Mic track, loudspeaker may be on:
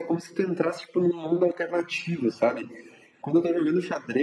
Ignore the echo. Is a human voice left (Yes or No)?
No